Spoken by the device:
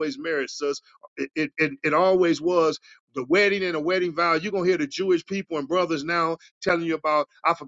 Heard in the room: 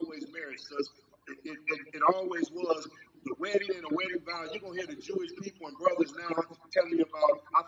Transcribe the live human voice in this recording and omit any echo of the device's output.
none

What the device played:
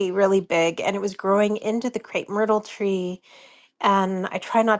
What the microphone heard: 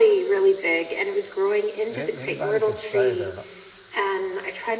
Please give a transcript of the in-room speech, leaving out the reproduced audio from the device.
Any, anybody can say they're an,

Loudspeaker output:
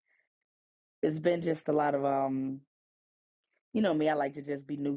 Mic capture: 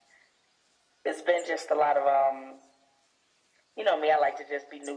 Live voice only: none

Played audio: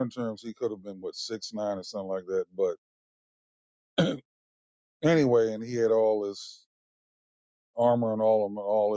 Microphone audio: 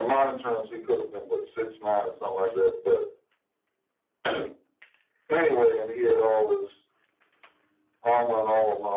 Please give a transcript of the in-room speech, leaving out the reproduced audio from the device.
none

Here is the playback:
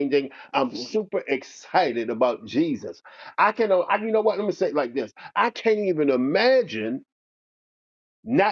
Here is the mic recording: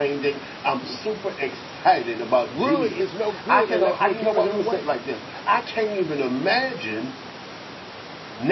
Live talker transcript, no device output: really is no good unless we're giving him away.

